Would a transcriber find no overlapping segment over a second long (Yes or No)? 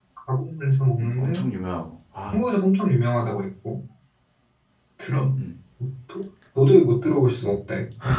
Yes